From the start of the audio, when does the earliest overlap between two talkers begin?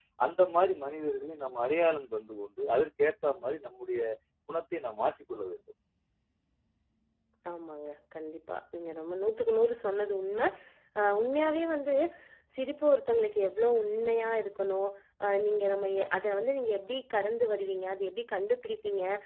none

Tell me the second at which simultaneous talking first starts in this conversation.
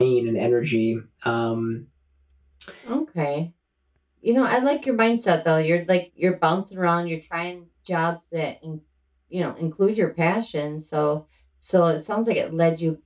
none

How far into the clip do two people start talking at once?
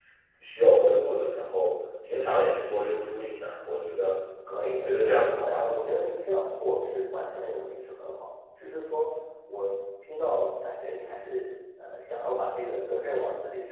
4.5 s

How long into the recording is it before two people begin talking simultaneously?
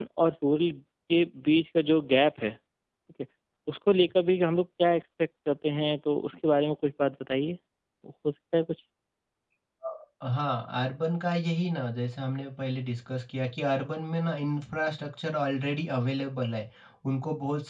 none

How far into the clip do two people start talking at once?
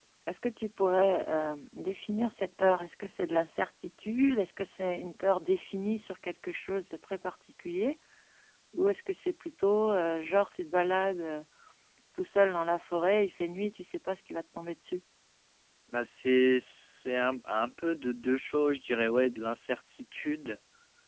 none

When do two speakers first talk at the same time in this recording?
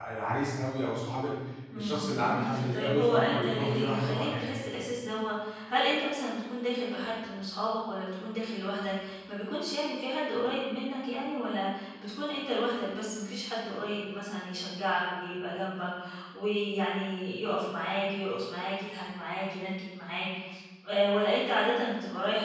1.8 s

